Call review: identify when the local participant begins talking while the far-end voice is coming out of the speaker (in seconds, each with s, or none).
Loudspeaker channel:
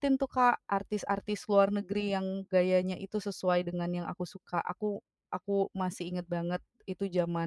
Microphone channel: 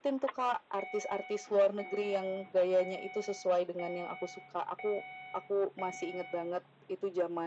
none